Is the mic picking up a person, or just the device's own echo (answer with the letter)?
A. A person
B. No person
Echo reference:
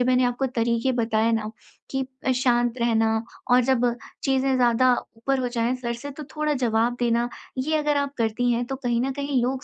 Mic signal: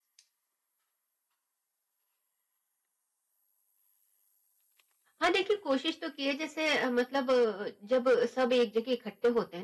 A